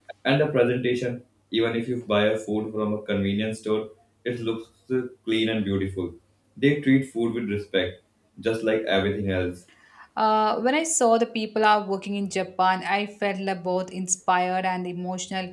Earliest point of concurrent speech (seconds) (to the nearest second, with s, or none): none